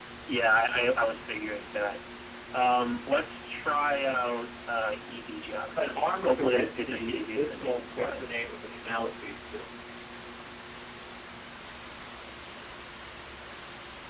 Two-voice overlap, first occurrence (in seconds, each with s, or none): 5.8 s